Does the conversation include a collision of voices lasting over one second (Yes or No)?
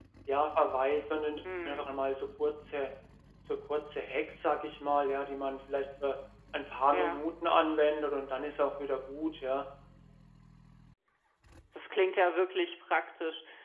No